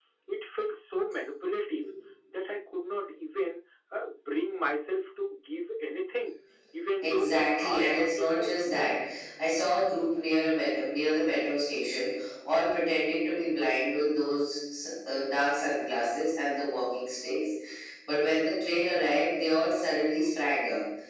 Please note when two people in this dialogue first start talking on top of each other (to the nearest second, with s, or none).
7 s